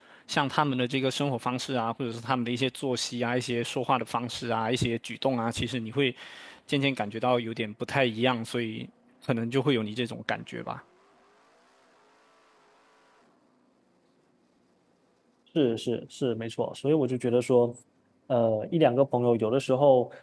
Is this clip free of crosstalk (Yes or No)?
Yes